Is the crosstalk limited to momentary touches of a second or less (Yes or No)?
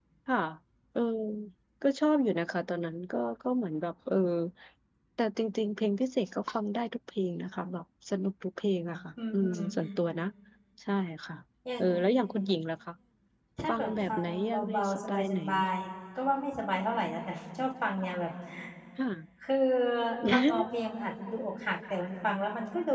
No